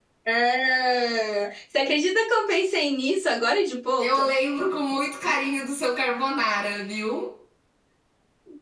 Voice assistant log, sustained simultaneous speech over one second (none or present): none